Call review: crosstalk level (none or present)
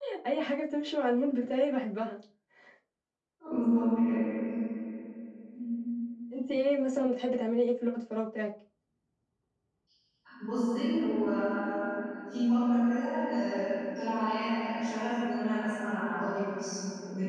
none